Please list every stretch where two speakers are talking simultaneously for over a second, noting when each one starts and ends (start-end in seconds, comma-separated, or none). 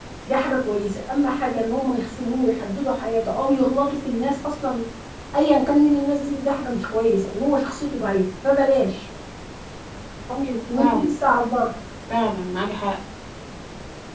none